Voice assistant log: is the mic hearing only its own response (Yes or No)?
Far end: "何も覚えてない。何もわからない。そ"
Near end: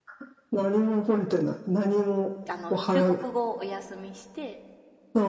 No